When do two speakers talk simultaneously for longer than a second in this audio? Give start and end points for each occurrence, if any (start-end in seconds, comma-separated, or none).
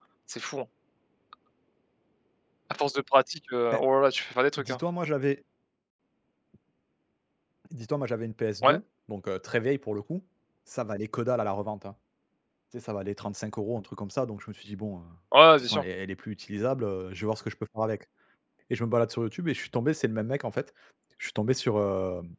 none